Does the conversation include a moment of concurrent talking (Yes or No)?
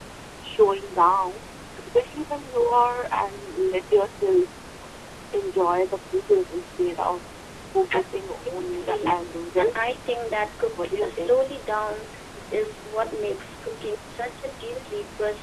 Yes